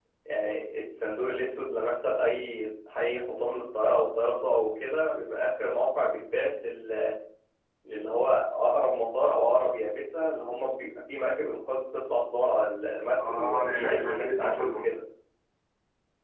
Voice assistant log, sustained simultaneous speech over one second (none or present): present